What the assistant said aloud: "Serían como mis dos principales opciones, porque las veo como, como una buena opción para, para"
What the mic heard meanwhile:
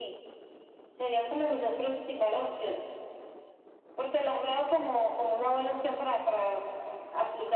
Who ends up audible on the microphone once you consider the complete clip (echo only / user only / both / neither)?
echo only